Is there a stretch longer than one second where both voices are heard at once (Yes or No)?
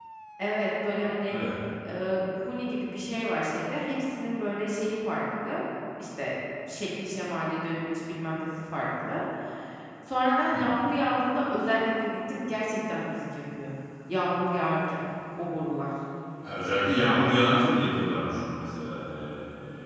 No